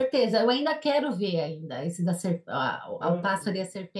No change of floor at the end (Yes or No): Yes